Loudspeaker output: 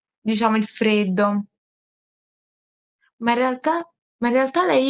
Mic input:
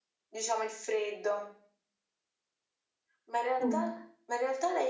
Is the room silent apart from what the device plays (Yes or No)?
No